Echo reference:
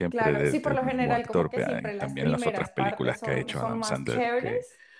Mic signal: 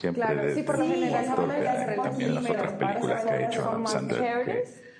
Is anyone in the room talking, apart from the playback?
Yes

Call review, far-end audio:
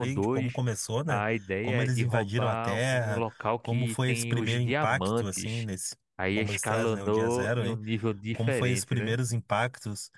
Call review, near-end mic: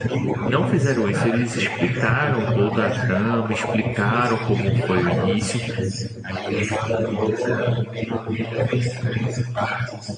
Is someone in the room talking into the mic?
Yes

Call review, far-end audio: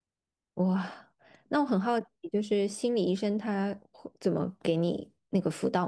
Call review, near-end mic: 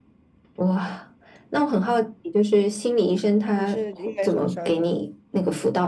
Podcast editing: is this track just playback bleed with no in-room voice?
No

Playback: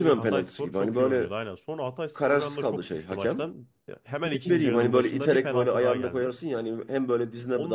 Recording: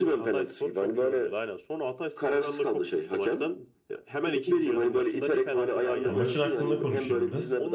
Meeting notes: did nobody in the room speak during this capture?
No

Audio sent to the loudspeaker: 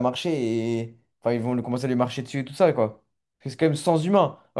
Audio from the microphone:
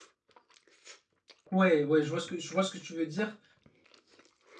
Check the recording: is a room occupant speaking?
Yes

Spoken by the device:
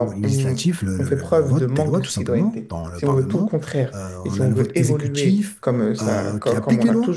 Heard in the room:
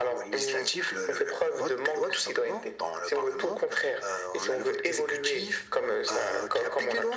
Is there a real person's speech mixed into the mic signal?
No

